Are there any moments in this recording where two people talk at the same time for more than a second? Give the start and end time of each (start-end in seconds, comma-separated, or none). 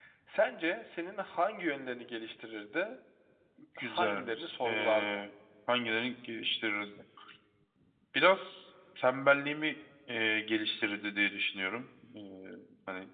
3.8-5.2